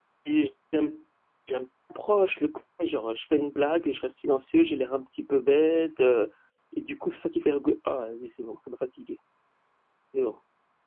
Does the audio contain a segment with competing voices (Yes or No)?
No